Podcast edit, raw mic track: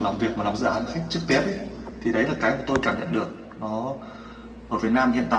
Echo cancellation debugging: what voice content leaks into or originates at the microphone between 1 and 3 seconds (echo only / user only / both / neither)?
echo only